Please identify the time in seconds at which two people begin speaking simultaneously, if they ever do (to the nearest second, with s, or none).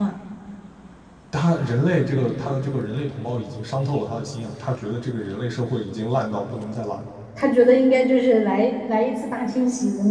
none